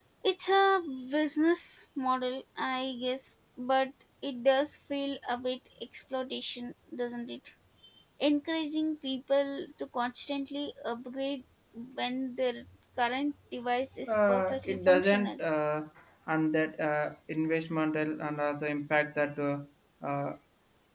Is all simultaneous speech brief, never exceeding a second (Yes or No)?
No